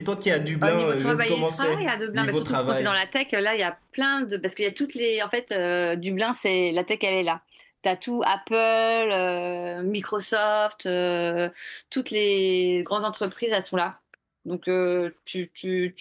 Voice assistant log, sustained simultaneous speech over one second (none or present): present